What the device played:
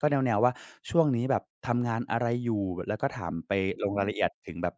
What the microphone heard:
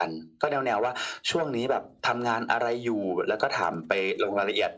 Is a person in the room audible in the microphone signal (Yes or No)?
No